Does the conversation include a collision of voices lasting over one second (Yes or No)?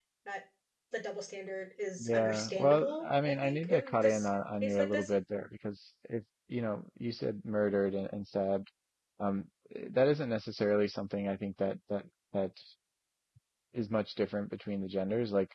Yes